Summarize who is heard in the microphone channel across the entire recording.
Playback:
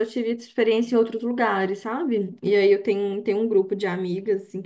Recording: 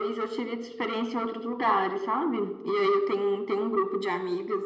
echo only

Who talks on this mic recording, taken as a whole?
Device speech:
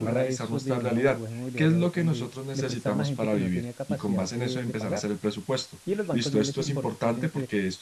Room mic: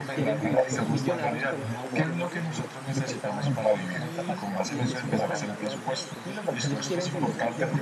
both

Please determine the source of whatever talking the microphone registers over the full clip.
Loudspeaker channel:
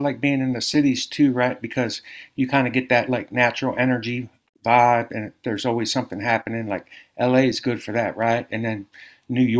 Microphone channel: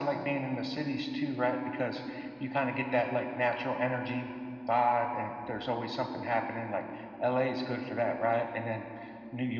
echo only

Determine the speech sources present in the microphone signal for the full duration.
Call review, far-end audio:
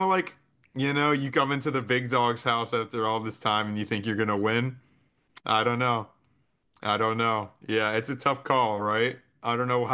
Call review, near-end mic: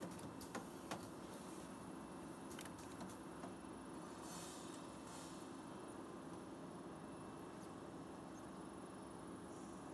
neither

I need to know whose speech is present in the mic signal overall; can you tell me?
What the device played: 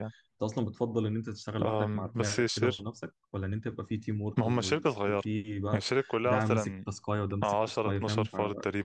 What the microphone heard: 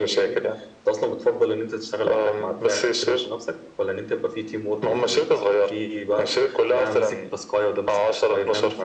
echo only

